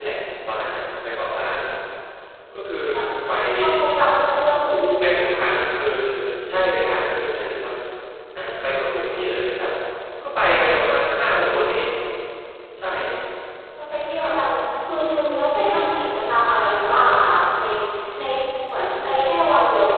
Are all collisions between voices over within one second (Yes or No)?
Yes